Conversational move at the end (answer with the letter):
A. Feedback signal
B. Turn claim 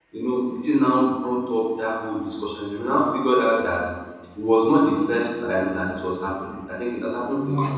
A